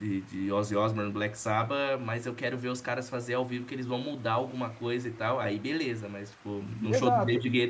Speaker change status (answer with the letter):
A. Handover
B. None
B